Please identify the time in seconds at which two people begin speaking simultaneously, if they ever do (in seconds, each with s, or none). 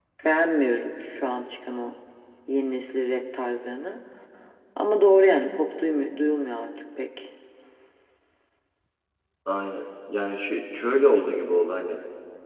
none